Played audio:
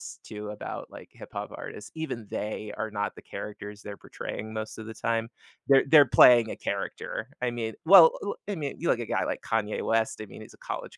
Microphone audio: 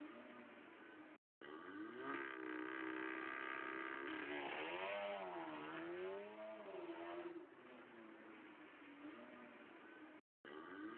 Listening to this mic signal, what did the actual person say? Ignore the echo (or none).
none